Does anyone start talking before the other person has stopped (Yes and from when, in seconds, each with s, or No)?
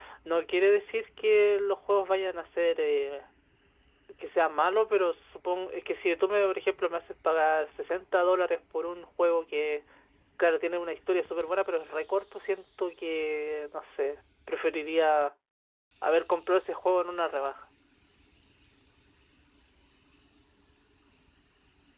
No